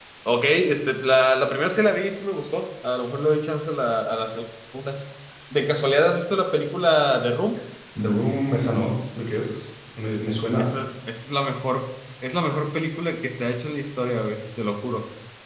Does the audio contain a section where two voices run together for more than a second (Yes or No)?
No